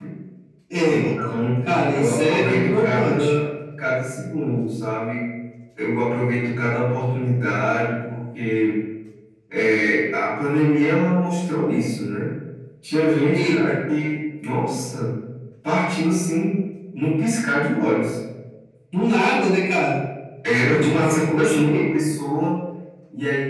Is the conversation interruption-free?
No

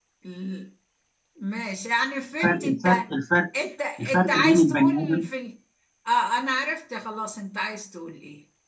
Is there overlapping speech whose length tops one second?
Yes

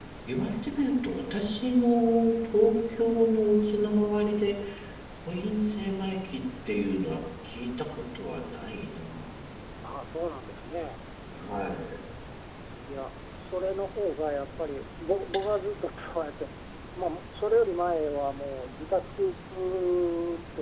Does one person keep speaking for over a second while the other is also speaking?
No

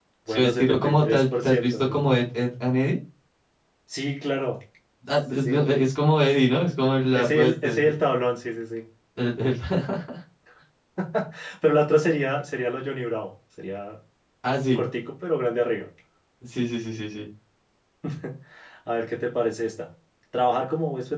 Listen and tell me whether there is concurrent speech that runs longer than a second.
Yes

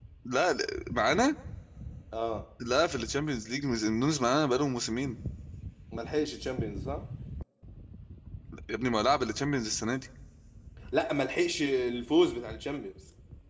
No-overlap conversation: Yes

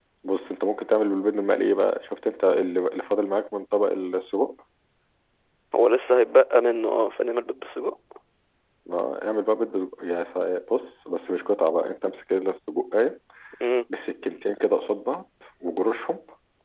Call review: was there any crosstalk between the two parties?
No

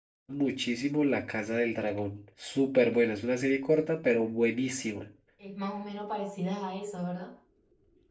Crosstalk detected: No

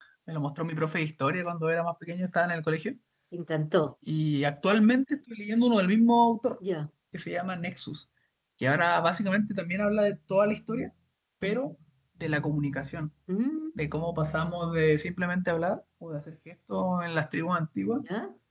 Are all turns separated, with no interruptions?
Yes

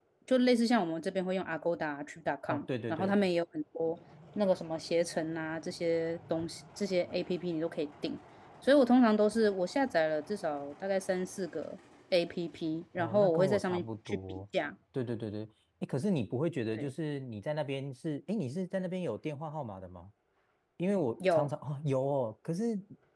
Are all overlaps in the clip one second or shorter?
No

